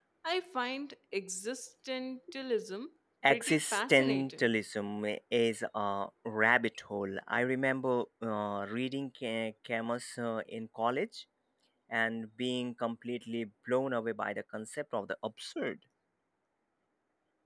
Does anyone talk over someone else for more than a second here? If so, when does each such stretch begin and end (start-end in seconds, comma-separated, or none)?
3.3-4.5